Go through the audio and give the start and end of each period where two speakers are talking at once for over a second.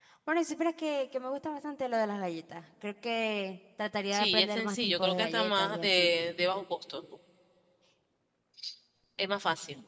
4.1-6.1

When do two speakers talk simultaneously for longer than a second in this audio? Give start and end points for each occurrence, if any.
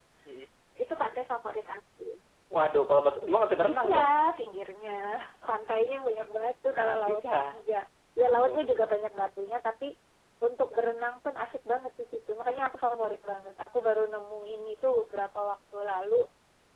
none

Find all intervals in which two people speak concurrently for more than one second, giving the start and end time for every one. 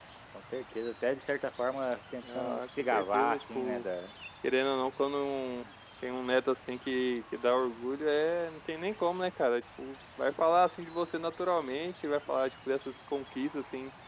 2.3-3.9

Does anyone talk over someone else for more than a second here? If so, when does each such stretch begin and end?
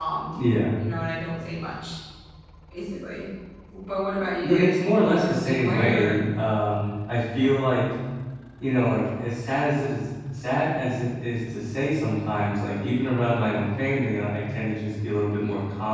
4.2-6.2

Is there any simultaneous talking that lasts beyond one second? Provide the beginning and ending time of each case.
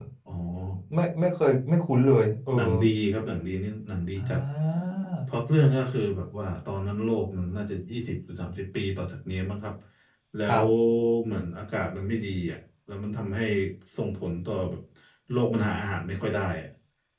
none

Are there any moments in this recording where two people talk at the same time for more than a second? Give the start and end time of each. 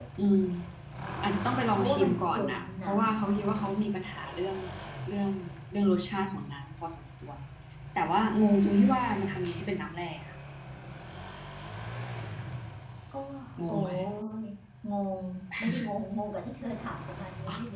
1.7-3.0

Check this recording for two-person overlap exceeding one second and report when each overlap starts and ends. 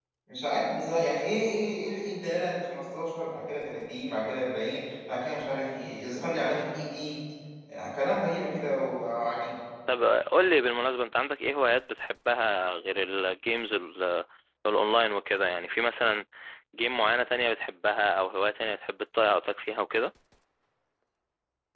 none

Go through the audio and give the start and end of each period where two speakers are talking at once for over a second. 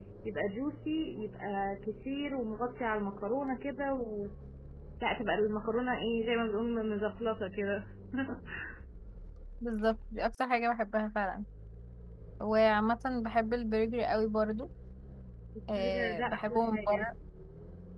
15.8-17.1

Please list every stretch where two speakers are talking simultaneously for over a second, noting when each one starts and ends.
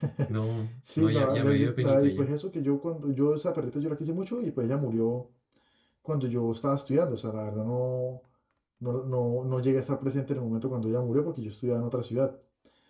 1.0-2.3

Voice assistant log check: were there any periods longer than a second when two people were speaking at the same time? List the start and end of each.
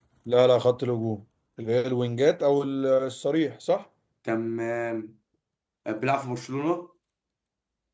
none

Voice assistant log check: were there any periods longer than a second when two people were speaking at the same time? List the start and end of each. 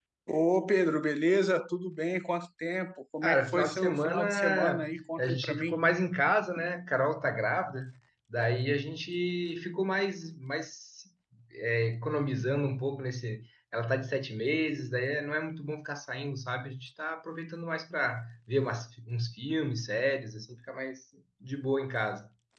3.2-5.7

